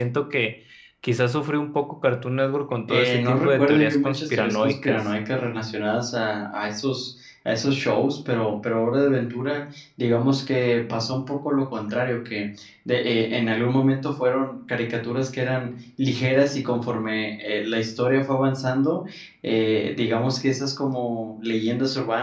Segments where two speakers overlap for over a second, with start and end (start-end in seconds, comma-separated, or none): 2.9-5.0